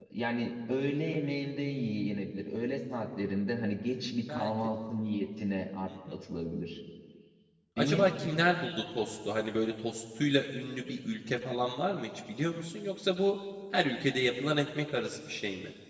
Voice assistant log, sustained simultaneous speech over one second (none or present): none